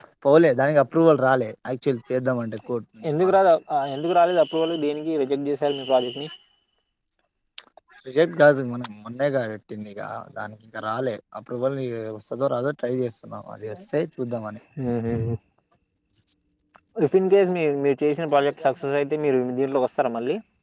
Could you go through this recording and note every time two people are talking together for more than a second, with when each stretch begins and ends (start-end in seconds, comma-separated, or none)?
none